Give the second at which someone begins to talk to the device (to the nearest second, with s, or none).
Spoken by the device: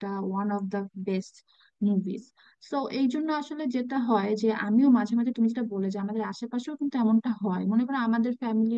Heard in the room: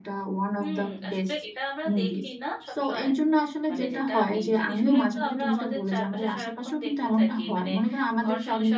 1 s